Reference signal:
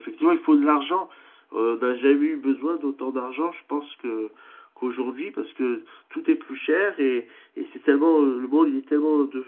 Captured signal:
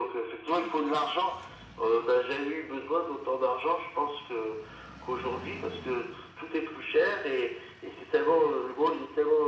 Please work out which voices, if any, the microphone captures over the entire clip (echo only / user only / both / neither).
echo only